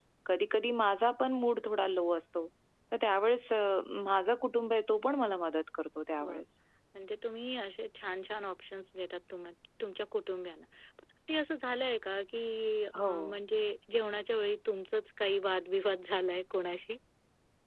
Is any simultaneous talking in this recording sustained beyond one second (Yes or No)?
No